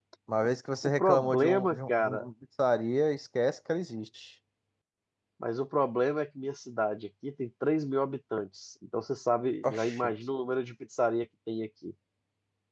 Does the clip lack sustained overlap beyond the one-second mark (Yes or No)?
No